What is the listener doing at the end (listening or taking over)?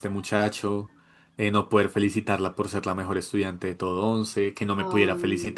listening